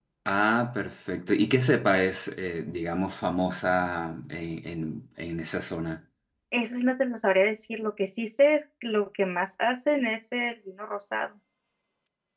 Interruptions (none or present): none